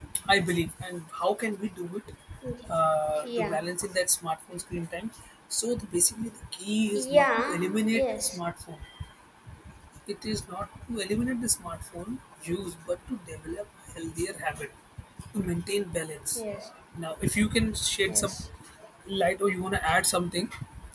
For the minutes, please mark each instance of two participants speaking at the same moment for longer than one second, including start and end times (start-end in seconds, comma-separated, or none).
6.9-8.4